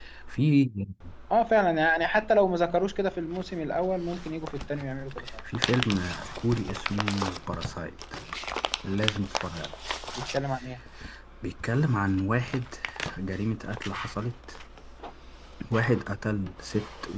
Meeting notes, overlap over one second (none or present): none